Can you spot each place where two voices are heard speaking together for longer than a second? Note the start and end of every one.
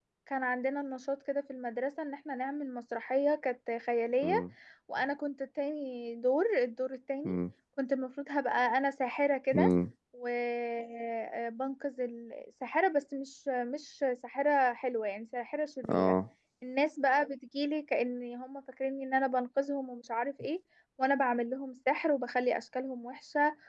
none

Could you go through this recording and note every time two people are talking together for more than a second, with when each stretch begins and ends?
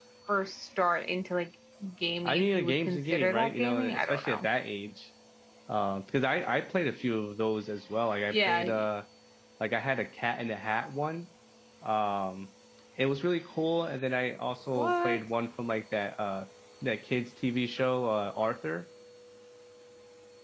2.2-4.5

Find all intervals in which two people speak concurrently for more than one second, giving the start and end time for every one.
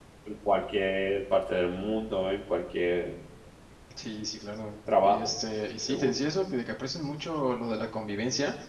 none

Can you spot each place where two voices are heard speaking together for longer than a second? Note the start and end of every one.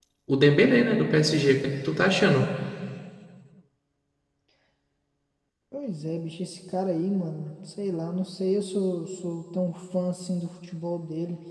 none

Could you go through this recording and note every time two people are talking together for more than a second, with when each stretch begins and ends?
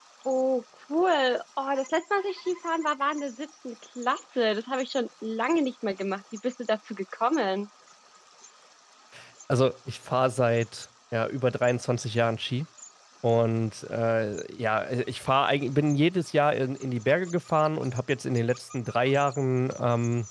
none

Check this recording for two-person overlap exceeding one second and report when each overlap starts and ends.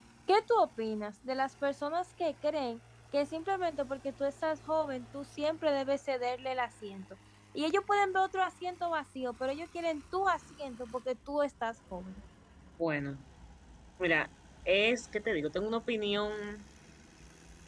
none

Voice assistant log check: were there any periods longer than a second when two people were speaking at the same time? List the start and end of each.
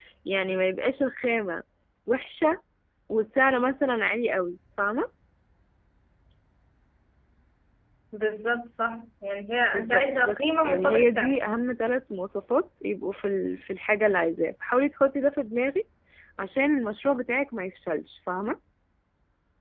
9.7-11.3

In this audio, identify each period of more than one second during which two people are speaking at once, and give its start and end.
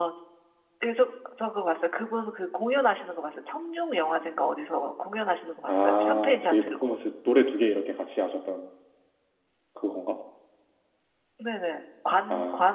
5.7-7.0

